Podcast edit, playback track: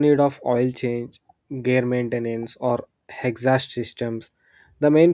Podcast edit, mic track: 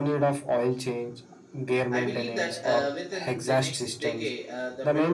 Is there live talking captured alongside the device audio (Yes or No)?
Yes